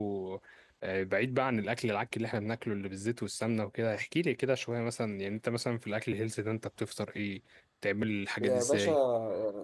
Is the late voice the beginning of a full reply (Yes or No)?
Yes